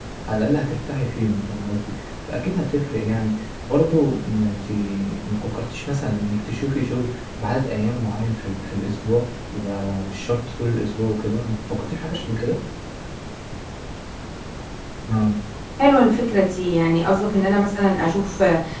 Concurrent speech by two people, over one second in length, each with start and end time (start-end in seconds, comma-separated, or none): none